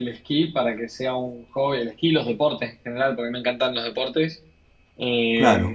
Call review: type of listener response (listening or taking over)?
listening